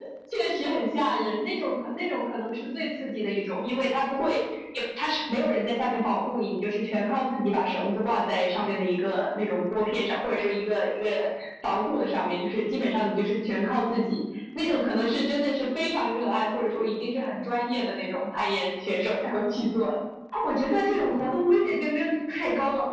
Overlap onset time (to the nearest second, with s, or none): none